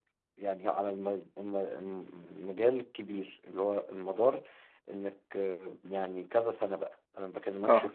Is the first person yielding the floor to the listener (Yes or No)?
No